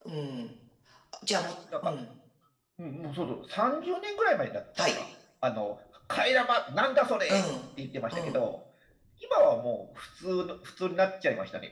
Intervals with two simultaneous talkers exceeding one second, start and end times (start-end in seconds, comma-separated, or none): none